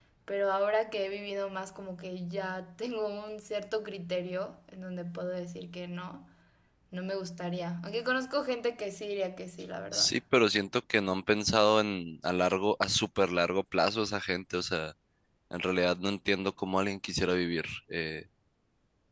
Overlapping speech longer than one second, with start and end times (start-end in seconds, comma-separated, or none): none